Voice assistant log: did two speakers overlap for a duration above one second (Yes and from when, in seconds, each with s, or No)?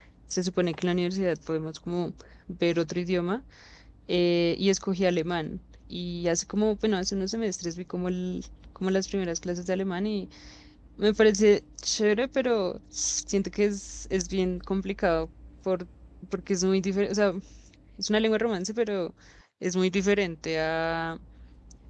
No